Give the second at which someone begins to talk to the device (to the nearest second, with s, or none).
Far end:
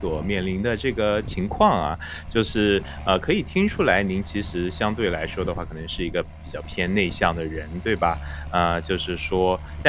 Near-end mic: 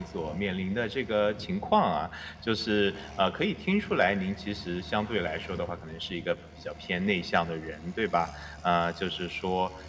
none